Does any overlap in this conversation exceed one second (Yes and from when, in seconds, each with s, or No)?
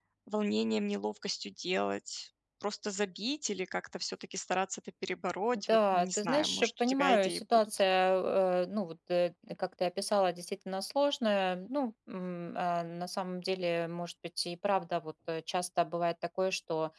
Yes, from 5.7 s